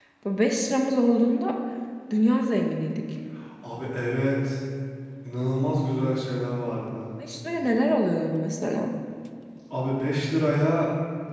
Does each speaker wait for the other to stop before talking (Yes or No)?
Yes